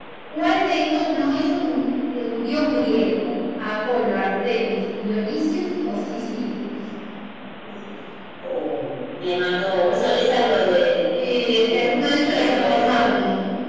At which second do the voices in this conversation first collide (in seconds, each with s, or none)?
11.7 s